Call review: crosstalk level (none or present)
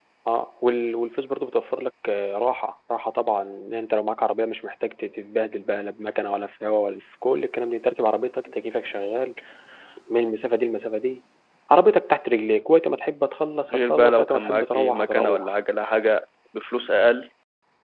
present